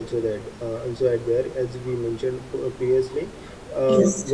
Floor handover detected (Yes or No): No